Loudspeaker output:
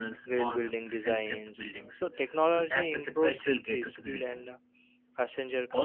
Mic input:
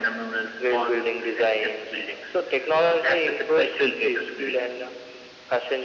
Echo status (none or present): present